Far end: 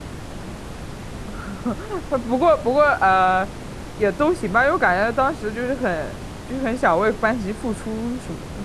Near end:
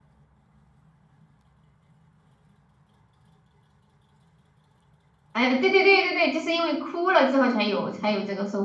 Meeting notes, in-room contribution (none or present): present